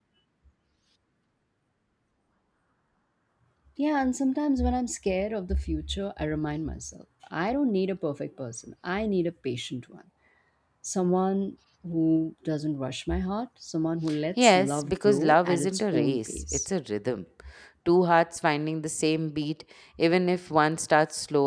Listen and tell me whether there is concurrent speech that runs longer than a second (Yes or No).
Yes